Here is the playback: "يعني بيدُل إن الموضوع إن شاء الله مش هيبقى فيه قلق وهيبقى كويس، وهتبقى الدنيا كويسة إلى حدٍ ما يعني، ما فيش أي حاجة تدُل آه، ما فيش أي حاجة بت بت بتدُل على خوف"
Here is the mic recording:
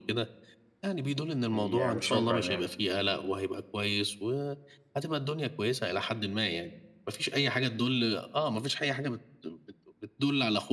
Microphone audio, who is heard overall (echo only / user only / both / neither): both